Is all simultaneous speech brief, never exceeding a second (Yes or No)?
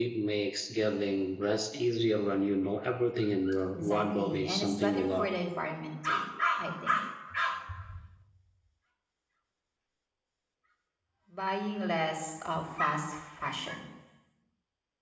No